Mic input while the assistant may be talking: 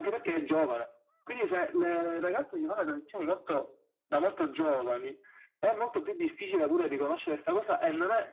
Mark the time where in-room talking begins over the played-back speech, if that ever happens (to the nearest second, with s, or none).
none